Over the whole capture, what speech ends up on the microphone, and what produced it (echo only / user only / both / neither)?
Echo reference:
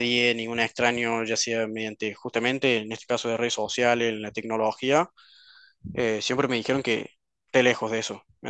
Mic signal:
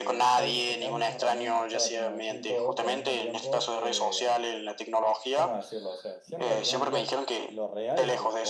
both